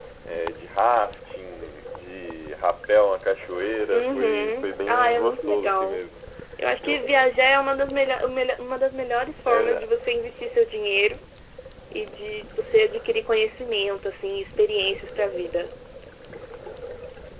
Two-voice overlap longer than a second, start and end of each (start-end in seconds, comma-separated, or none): 3.9-6.0